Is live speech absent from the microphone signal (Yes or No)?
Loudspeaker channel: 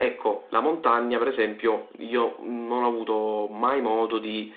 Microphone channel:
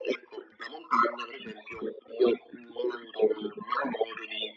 Yes